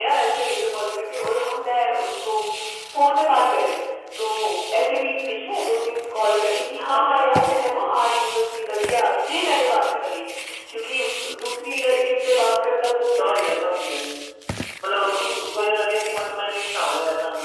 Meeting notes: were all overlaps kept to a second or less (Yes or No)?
Yes